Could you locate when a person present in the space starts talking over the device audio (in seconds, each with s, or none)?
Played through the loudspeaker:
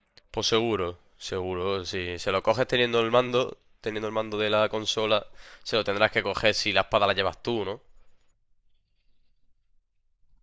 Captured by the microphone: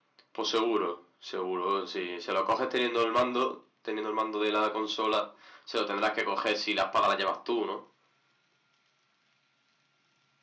none